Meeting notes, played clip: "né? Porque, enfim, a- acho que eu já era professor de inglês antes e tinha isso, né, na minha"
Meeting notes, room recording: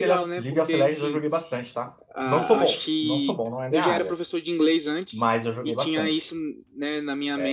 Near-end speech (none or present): present